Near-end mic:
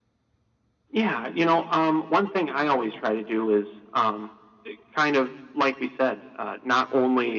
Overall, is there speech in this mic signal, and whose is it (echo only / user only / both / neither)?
echo only